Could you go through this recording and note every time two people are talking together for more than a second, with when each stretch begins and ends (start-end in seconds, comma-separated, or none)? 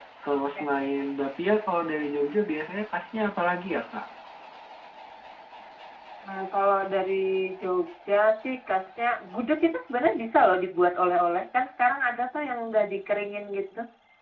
none